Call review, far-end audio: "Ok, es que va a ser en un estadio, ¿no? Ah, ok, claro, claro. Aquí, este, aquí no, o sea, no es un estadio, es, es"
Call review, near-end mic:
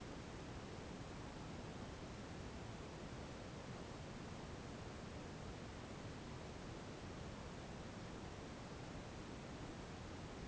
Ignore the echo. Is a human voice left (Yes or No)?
No